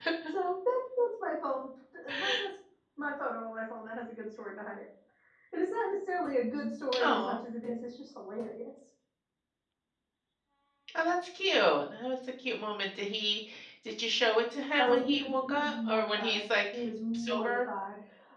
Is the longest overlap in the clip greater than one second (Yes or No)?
Yes